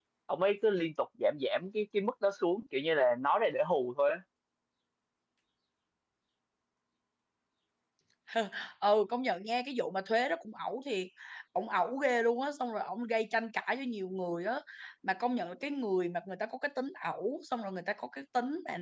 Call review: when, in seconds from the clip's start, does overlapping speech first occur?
none

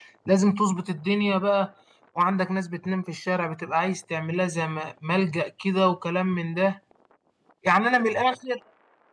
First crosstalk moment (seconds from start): none

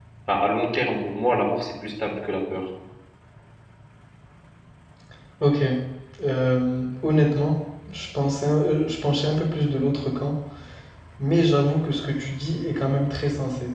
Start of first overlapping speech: none

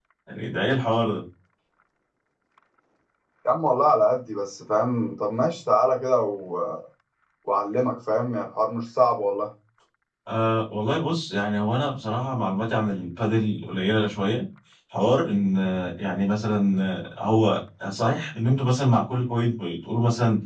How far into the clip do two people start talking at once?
none

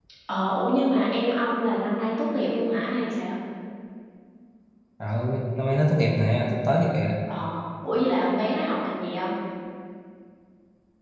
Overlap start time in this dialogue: none

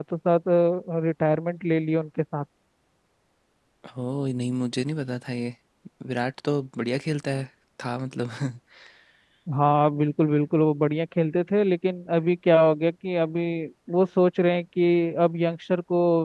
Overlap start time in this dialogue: none

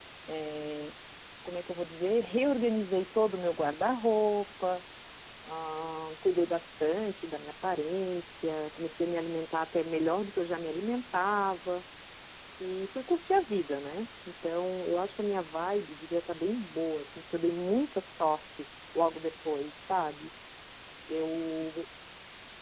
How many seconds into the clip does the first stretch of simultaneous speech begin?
none

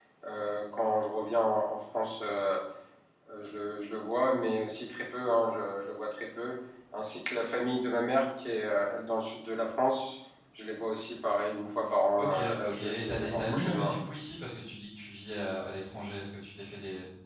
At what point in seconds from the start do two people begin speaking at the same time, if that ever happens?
12.2 s

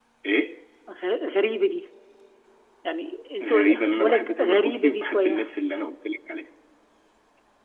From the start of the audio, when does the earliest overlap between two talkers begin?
3.4 s

